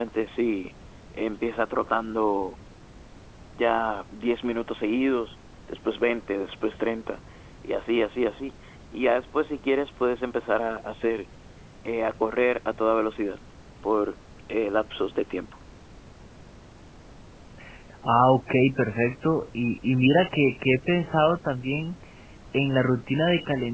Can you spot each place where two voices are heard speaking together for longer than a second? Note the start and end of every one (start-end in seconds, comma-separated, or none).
none